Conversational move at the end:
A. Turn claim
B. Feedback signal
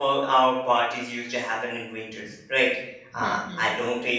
B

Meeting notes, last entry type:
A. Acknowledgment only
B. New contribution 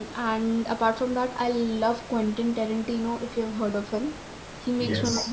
A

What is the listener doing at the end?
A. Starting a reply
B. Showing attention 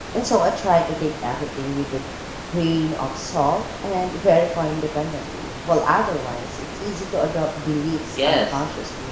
A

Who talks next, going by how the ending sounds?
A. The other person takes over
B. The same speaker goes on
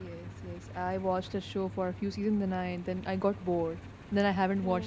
A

